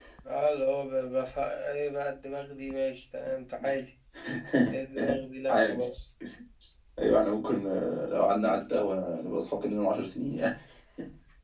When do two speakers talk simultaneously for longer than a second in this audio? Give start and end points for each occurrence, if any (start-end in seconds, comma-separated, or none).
none